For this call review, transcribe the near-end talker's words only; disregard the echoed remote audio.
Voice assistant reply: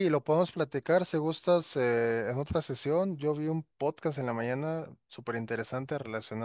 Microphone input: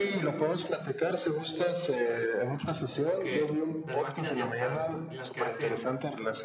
porque las máquinas ya están, las que hacen

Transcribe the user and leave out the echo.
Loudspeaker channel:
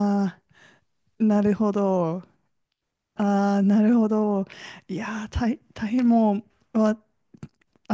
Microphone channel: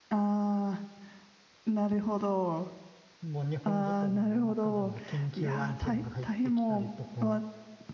もう日本時間の夜中でも緊急案件が入ってきたりとか

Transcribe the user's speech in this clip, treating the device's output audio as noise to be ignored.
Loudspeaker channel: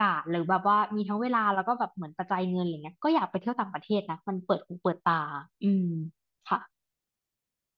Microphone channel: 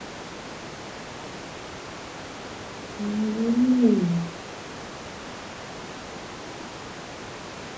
อืม

